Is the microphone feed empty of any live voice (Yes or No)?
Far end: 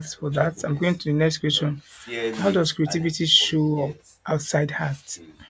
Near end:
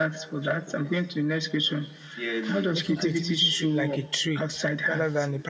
No